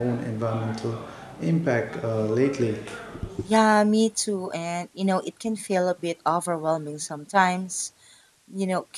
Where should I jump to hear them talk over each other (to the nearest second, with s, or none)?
none